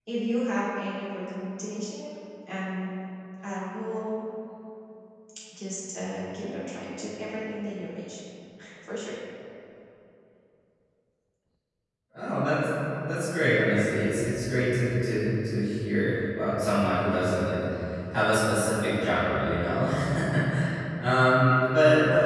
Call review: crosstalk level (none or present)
none